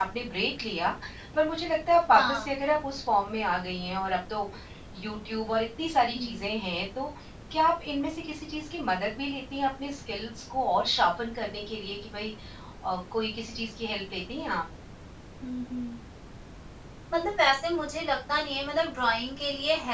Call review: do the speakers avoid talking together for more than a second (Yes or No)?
Yes